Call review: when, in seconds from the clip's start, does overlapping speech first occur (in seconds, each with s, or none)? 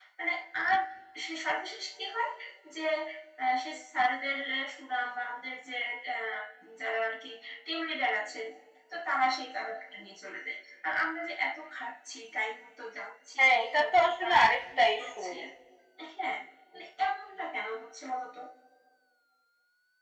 13.4 s